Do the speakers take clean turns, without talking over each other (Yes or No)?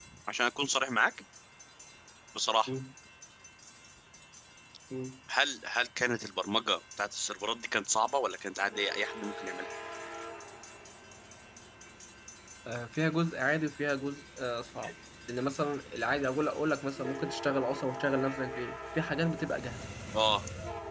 Yes